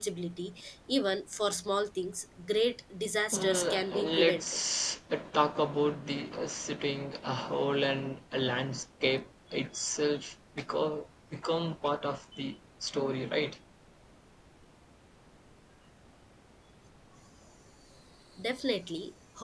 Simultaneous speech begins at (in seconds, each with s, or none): 3.3 s